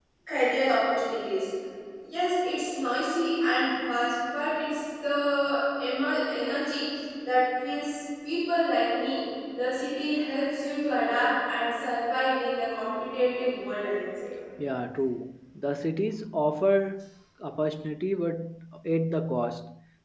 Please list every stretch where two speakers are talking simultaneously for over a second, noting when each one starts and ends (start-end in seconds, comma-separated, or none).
none